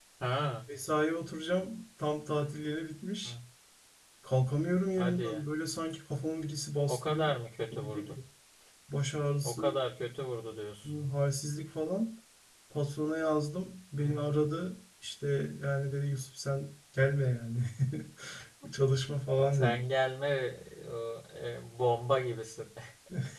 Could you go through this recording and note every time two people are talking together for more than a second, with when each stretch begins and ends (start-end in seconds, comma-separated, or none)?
none